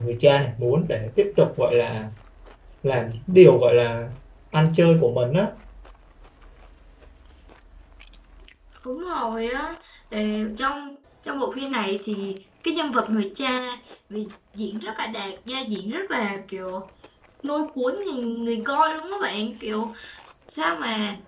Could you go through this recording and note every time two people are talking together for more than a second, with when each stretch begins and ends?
none

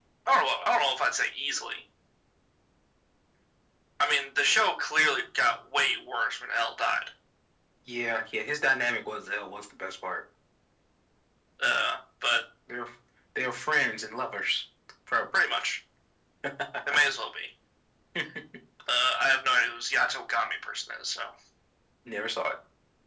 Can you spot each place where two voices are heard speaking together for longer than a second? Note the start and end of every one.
none

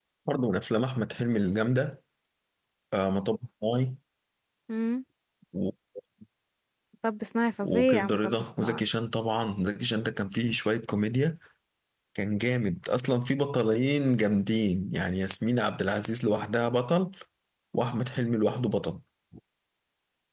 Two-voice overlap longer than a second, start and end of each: 7.6-8.8

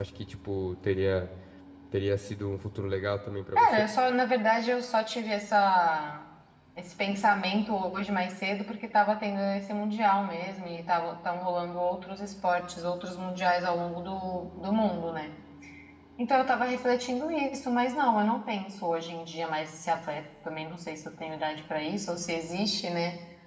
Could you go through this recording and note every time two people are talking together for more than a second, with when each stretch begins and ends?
none

